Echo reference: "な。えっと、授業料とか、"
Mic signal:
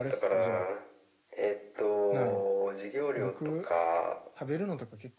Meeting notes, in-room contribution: present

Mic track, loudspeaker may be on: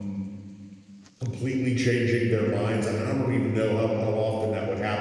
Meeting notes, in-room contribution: present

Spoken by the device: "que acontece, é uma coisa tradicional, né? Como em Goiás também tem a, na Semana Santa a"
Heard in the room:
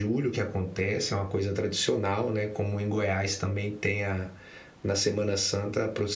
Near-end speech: none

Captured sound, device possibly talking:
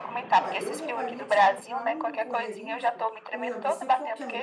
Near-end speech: present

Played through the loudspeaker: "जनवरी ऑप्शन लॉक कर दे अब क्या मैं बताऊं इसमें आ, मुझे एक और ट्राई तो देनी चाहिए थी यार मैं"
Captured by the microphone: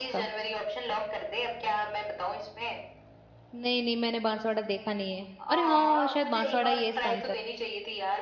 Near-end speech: present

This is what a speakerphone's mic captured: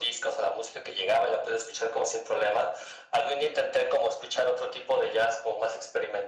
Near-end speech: none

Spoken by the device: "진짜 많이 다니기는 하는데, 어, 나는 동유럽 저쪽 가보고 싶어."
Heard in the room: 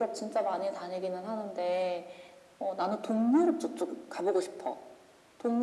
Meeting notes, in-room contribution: none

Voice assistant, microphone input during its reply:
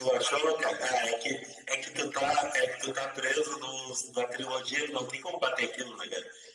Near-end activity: none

